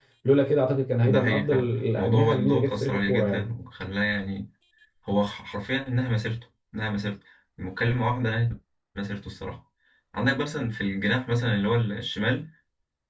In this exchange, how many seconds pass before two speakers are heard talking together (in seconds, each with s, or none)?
1.0 s